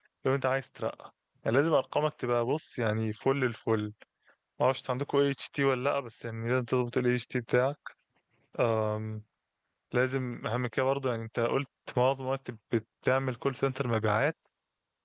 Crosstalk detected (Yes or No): No